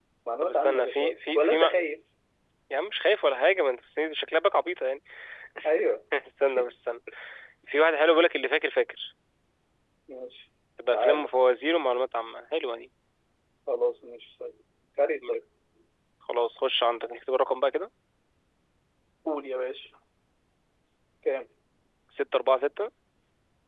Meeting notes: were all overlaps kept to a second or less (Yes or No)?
No